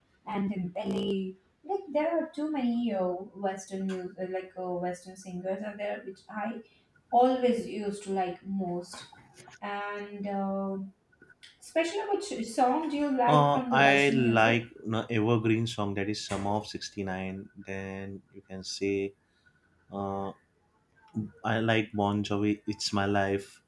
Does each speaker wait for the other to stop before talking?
No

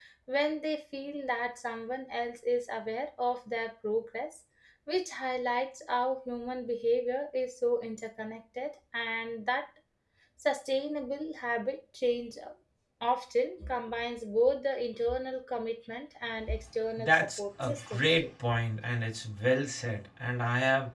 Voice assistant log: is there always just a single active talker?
No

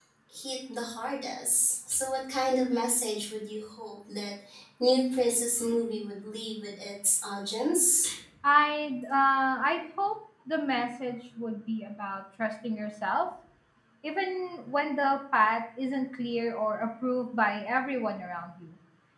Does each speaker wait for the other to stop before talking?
Yes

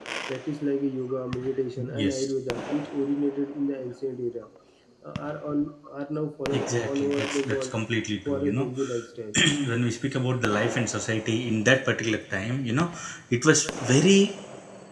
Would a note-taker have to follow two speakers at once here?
Yes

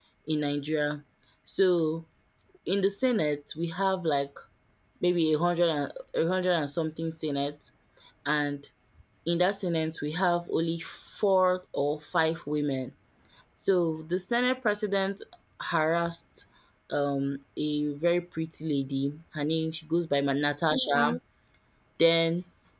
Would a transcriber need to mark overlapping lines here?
No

